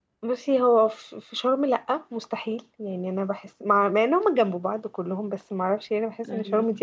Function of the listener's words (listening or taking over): listening